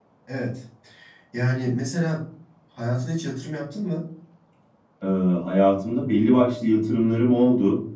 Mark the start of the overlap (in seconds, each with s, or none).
none